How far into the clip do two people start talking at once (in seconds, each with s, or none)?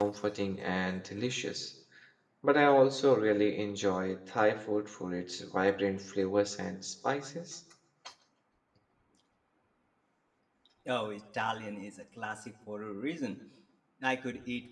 none